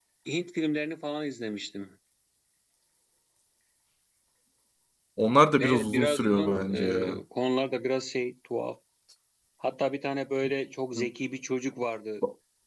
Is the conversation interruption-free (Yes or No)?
No